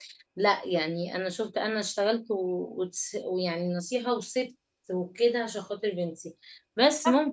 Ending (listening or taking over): listening